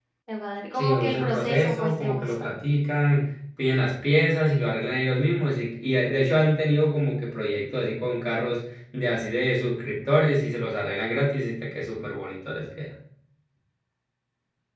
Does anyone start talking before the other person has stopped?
Yes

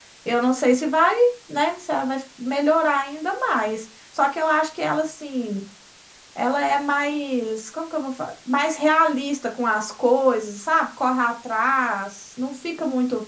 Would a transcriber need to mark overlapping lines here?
No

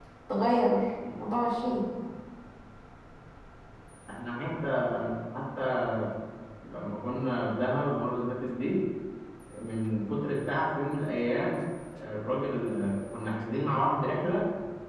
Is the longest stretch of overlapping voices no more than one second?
Yes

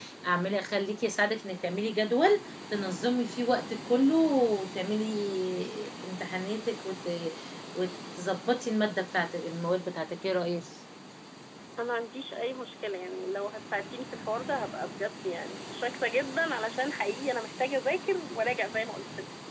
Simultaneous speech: No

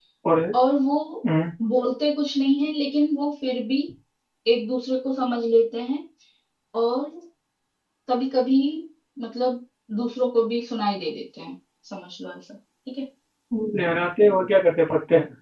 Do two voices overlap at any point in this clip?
No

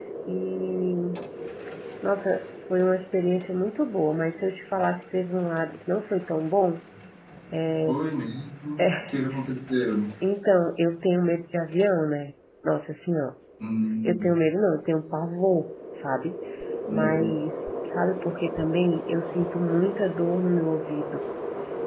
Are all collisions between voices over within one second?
Yes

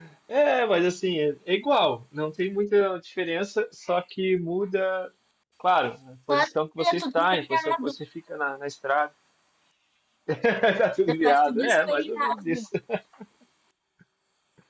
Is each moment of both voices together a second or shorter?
No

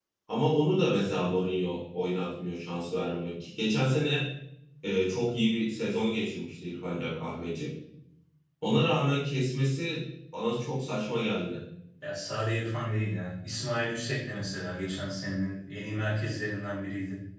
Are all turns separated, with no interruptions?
Yes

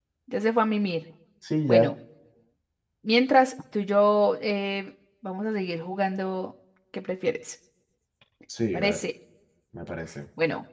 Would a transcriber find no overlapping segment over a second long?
Yes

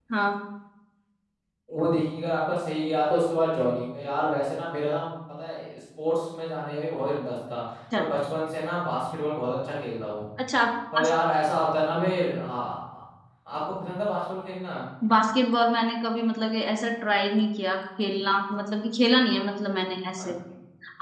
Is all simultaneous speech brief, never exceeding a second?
Yes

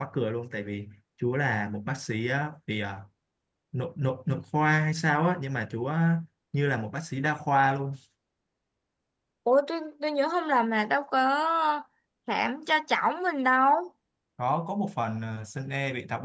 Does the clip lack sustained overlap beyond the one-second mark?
Yes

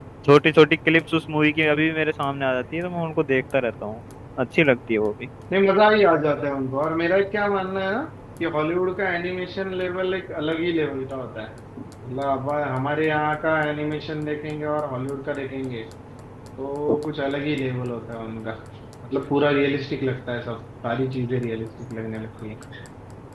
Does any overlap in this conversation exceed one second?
No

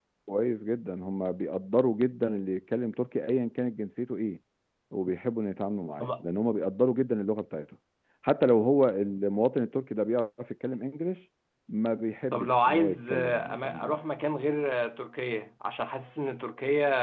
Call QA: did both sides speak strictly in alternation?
No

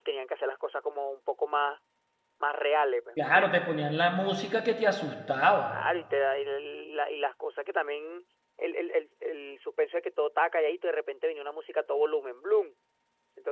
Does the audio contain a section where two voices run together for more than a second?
No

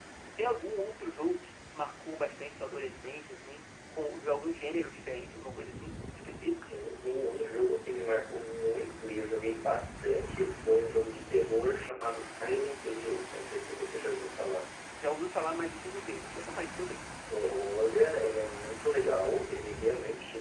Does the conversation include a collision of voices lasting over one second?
No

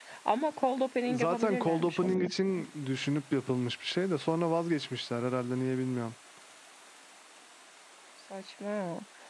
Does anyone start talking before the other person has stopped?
Yes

